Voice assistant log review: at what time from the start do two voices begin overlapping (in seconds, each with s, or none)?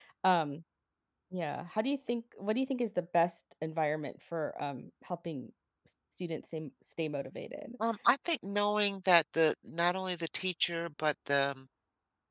none